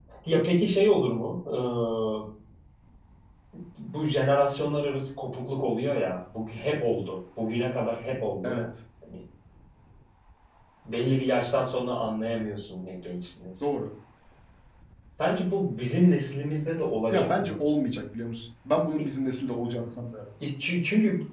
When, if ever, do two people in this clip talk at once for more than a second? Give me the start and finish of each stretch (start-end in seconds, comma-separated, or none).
none